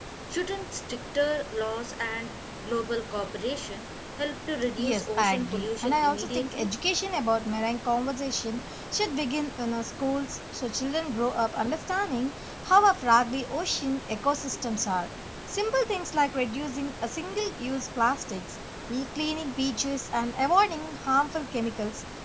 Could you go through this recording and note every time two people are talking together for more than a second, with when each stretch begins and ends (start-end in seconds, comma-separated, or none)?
4.8-6.7